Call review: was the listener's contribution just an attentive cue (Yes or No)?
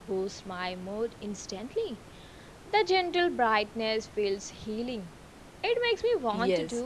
No